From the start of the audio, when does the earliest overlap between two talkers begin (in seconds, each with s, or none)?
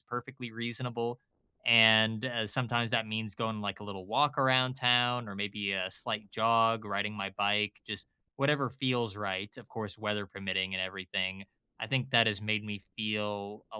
none